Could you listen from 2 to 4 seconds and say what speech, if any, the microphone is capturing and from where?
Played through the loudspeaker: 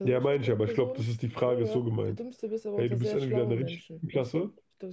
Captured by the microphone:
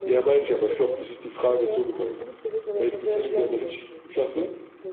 echo only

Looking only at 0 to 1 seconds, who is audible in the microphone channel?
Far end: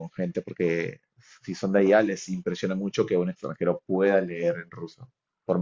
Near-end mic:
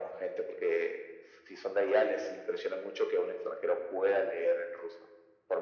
echo only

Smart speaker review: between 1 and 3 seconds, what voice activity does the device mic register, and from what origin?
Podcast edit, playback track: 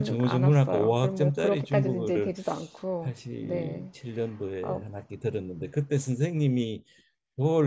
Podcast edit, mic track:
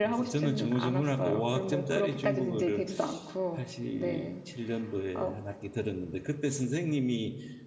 echo only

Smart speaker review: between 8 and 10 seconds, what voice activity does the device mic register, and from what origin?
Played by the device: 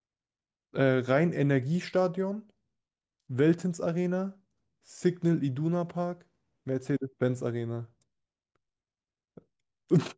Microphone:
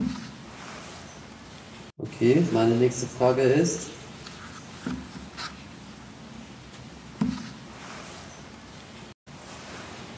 neither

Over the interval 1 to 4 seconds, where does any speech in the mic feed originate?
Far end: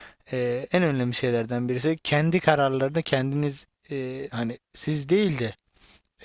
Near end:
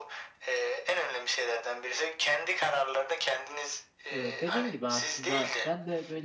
echo only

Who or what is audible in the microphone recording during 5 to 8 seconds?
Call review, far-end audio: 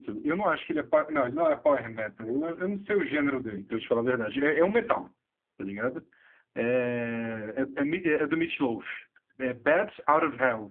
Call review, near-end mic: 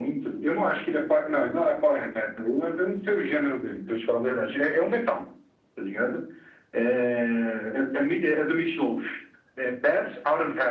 echo only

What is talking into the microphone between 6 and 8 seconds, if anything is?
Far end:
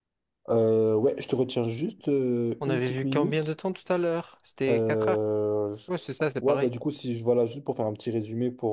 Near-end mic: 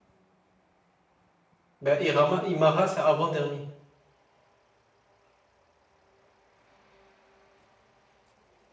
neither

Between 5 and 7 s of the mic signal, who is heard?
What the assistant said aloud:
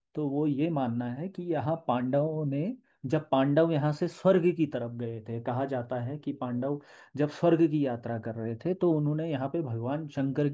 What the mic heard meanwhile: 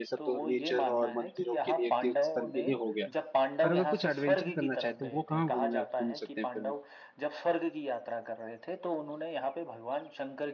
both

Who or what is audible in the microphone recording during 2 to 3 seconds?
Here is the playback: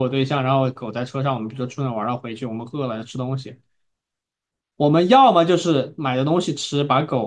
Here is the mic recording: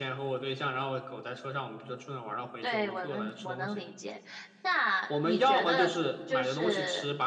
both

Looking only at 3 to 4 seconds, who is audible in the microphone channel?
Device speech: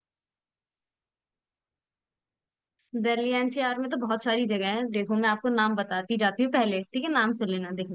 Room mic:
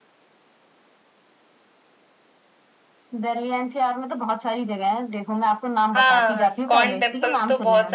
echo only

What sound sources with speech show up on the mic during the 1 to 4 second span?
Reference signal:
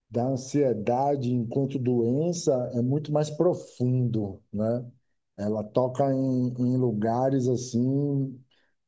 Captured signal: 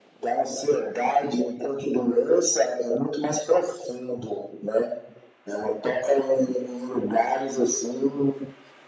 echo only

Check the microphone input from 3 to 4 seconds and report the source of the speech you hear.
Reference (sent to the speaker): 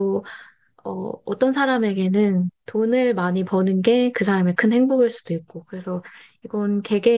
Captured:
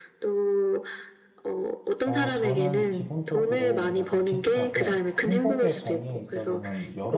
both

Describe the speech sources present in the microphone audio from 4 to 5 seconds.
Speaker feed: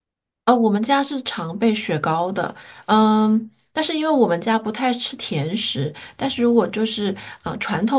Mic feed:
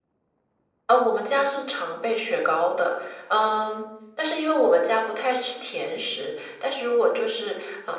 echo only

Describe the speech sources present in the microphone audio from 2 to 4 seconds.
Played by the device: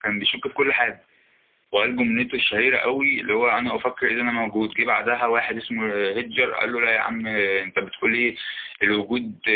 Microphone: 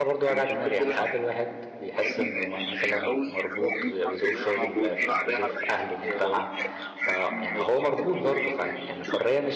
both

